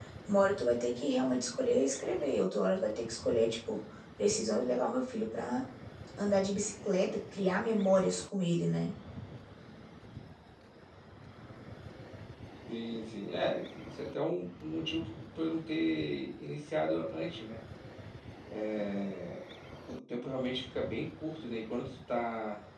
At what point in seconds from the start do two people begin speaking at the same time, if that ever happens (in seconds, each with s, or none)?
none